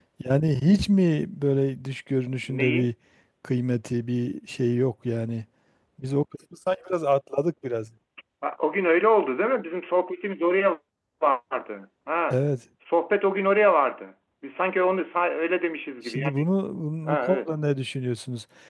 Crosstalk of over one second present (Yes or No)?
No